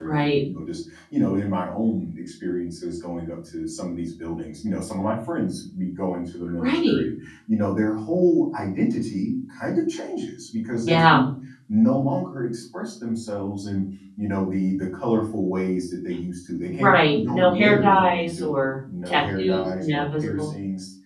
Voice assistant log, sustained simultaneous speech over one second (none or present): present